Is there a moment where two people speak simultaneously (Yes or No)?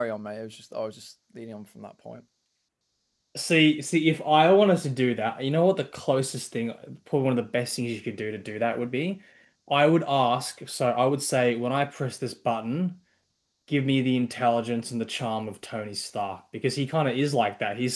No